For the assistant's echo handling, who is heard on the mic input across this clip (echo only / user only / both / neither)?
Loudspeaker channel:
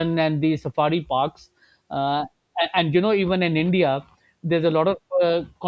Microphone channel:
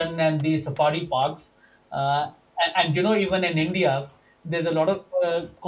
echo only